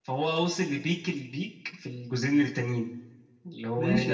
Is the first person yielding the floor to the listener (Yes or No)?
Yes